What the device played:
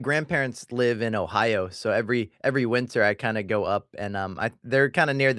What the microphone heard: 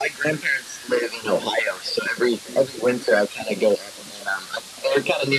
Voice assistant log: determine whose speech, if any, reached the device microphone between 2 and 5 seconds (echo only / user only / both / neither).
echo only